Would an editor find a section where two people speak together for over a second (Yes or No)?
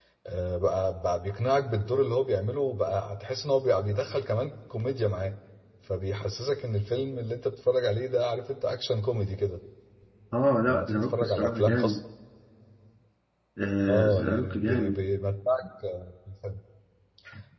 Yes